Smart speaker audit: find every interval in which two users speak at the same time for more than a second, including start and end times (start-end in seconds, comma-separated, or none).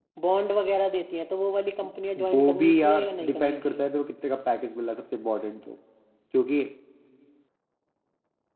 2.3-3.8